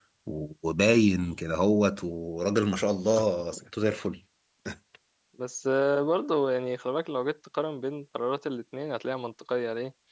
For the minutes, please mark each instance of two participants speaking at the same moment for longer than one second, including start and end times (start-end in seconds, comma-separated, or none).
none